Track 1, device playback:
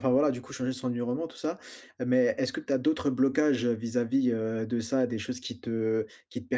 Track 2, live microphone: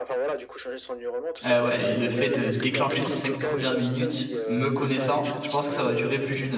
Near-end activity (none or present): present